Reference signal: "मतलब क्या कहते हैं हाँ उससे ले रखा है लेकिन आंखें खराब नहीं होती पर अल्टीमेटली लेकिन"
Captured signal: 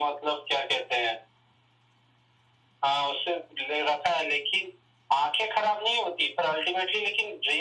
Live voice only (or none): none